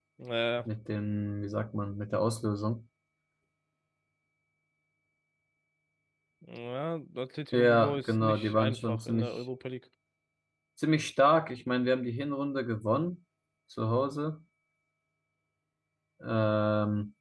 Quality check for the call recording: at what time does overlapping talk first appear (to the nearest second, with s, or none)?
8 s